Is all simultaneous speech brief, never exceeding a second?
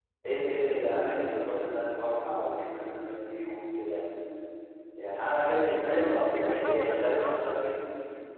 No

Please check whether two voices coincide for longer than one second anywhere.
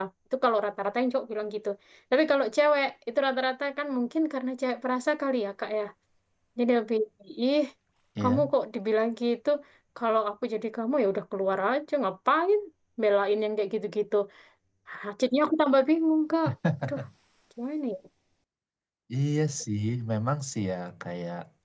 No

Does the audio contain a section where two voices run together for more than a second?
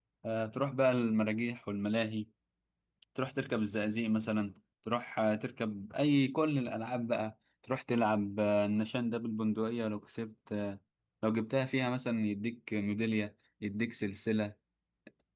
No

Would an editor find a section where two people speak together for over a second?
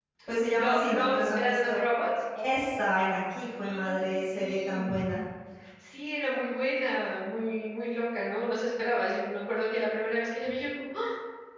Yes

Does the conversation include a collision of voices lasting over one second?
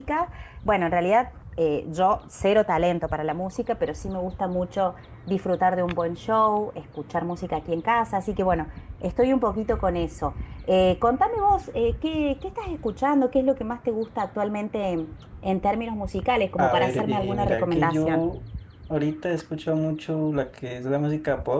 Yes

